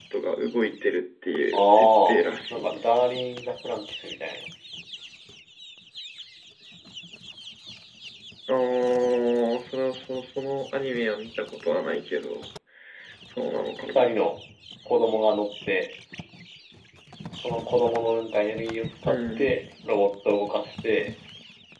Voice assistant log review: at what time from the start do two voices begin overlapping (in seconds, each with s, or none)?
1.5 s